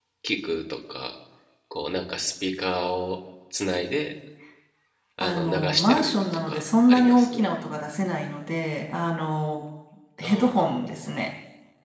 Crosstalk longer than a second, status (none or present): present